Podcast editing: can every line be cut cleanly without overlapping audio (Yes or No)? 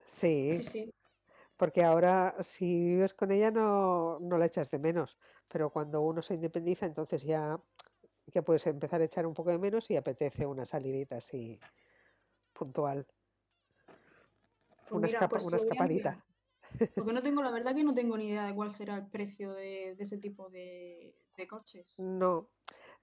No